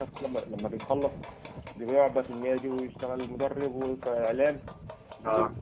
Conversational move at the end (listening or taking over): listening